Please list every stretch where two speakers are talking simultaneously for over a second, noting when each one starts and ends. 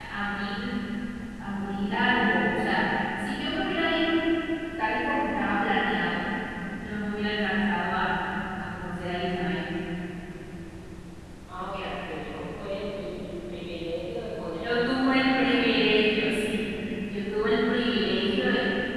14.6-16.0

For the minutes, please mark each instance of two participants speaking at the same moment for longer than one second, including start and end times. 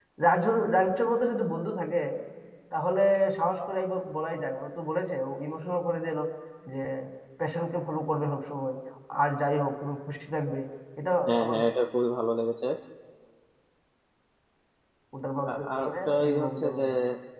15.5-16.8

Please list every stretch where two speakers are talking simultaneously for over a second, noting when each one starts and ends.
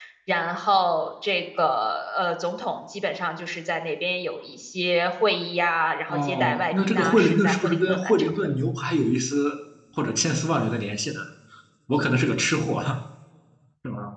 6.1-8.3

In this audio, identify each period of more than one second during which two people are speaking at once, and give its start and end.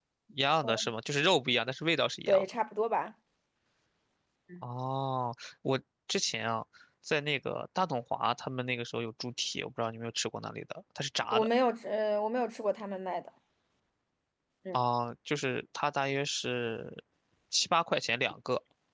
none

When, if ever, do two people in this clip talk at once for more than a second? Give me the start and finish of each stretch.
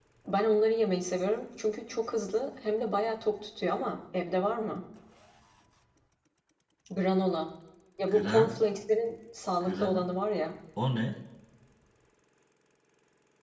none

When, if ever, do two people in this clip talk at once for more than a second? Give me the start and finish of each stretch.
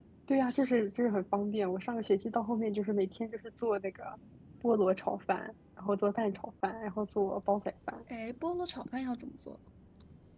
none

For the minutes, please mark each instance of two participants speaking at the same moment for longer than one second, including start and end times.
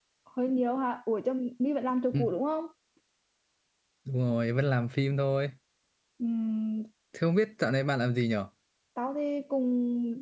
none

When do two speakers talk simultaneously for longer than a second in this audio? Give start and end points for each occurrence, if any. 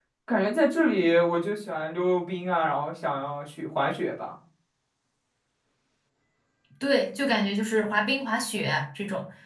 none

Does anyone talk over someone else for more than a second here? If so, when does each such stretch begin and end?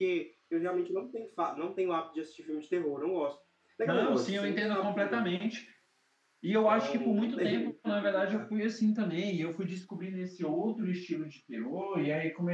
3.8-5.3, 6.7-8.5

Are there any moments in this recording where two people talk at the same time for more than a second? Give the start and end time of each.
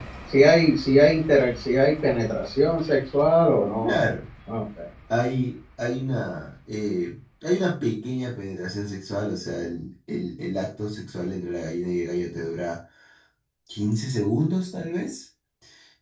none

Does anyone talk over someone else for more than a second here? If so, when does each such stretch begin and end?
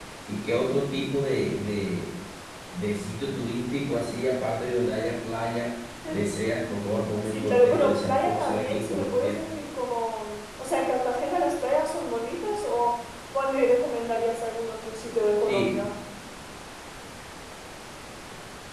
7.2-9.4

